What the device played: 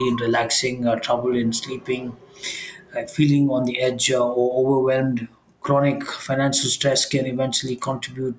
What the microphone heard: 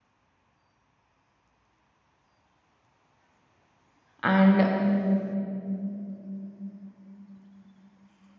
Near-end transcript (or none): and